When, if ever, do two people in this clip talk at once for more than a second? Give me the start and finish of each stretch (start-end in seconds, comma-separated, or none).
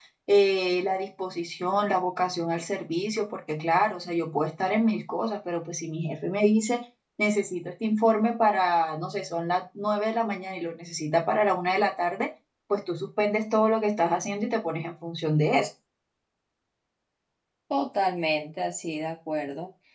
none